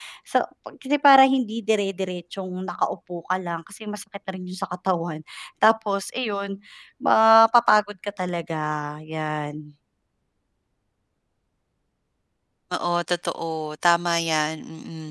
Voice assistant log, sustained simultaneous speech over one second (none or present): none